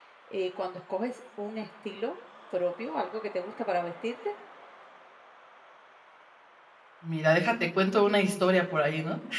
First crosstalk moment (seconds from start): none

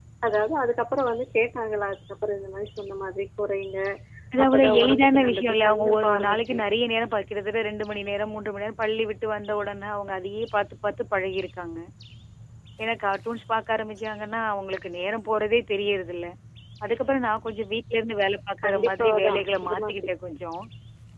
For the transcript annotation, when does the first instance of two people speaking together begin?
4.4 s

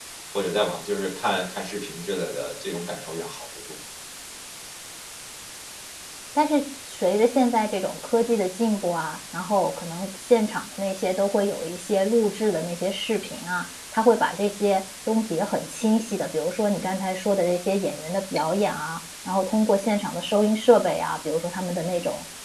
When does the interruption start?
none

